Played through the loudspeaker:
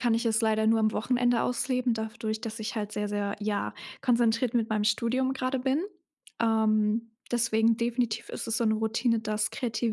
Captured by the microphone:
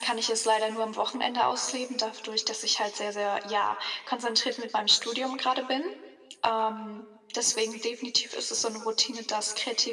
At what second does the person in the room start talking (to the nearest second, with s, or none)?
none